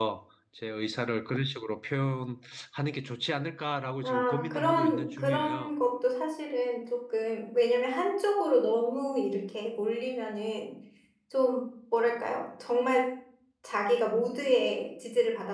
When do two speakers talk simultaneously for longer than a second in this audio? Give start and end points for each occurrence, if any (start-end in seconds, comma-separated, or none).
4.0-5.7